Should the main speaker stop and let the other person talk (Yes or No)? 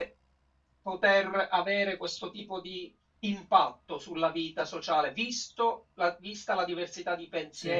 No